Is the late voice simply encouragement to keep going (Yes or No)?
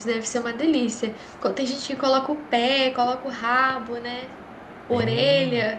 No